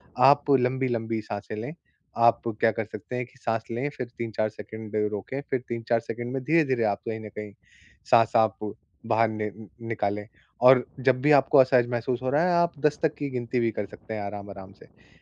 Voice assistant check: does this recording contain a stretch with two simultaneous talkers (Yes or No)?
No